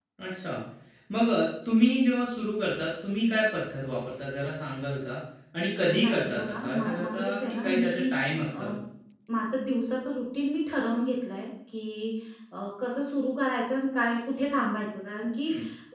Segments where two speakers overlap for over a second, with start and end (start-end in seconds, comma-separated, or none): 5.8-8.1